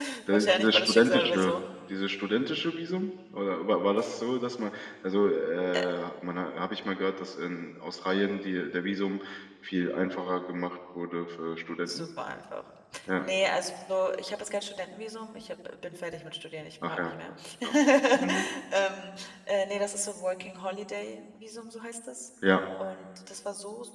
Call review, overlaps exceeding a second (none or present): present